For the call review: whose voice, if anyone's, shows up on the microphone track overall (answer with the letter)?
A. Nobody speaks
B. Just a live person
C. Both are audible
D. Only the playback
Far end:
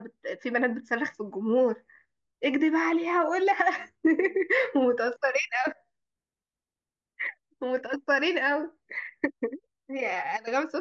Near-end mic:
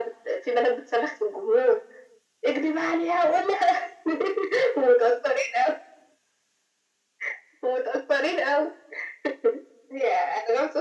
D